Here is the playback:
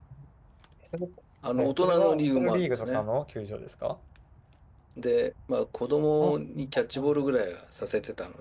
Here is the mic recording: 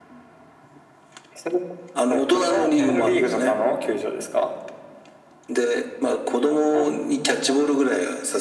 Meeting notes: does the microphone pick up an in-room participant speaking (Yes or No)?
Yes